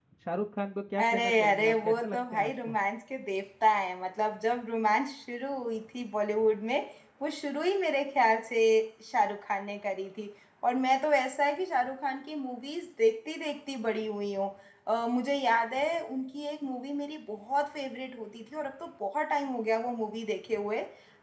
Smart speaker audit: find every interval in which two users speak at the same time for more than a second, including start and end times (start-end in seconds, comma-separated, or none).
1.0-2.8